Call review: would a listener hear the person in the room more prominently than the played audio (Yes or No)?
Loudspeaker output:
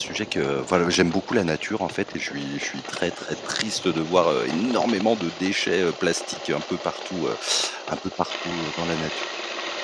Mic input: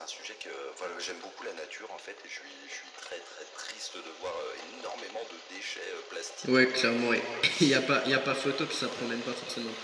Yes